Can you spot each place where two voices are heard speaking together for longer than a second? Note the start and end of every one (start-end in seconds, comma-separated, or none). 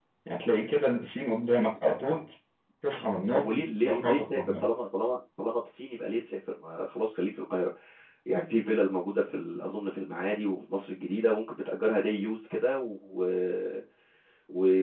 3.3-4.7